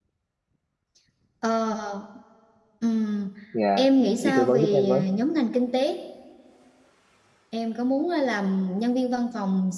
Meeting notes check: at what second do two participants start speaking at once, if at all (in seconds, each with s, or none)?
3.8 s